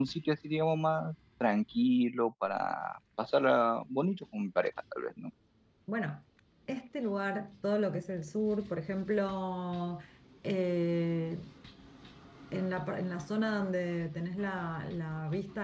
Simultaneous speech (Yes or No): No